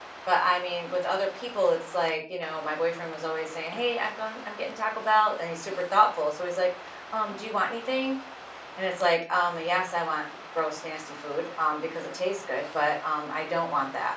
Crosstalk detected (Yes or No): No